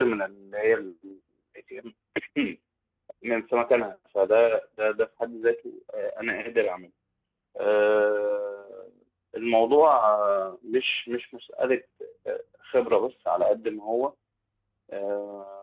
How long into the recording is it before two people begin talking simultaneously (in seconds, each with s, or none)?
none